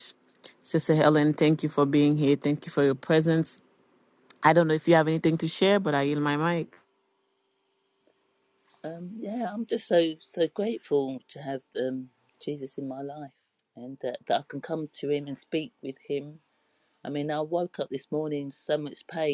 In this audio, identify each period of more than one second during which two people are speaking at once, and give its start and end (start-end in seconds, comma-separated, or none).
none